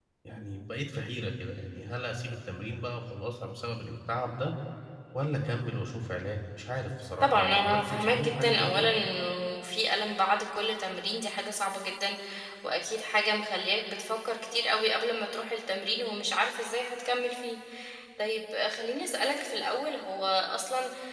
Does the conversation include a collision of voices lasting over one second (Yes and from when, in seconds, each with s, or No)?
Yes, from 7.2 s